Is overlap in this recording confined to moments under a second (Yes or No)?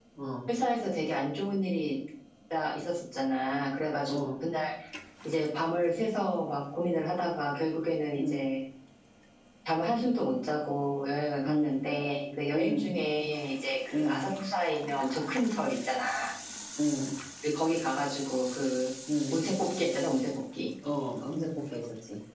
Yes